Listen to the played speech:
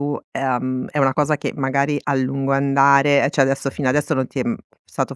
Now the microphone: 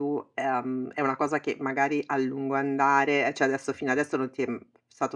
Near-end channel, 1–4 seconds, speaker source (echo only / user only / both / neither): echo only